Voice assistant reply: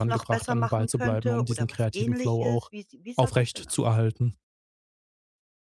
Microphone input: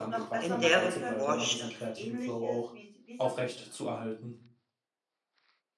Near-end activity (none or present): present